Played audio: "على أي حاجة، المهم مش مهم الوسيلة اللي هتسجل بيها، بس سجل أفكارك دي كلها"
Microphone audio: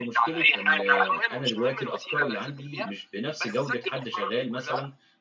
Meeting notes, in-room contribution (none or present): present